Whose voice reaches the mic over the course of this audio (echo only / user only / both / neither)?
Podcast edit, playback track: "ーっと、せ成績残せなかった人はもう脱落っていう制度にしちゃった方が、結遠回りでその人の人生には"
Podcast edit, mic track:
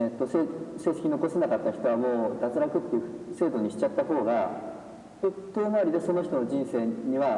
echo only